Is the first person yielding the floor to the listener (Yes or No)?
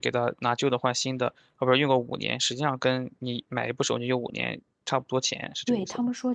Yes